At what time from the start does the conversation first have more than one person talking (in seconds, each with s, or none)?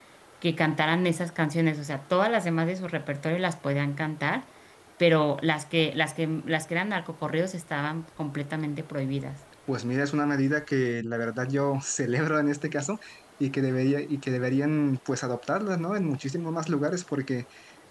none